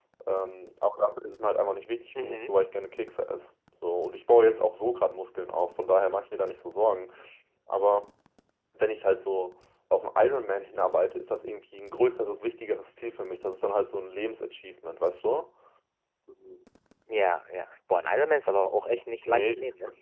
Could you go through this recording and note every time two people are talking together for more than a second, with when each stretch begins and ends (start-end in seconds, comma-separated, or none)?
none